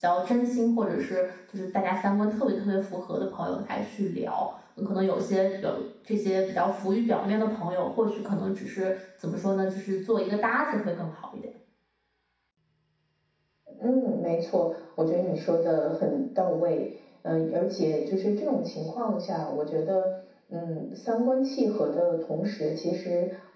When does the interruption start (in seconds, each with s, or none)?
none